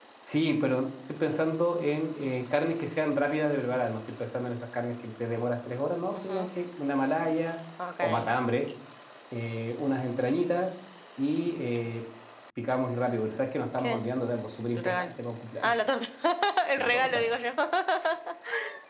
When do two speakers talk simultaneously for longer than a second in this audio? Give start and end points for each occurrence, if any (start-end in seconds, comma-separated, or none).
none